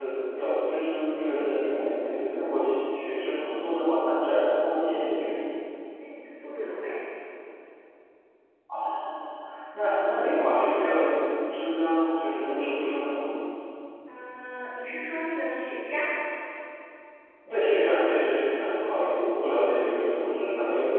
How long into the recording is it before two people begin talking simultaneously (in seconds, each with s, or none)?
none